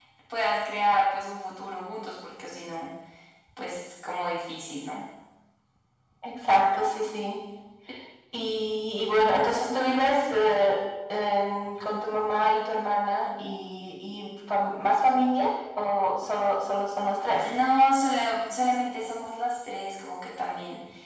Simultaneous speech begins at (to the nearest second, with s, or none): none